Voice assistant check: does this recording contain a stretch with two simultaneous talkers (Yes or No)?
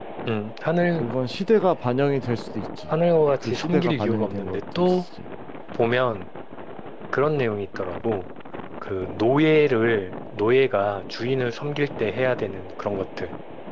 Yes